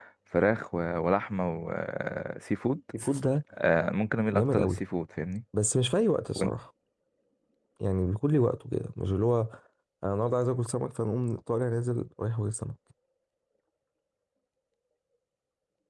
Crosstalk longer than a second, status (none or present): none